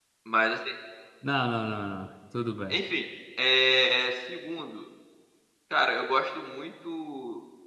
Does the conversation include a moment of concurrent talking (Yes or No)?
No